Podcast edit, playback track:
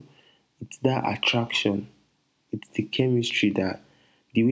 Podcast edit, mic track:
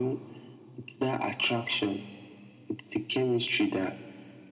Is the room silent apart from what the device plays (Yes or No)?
Yes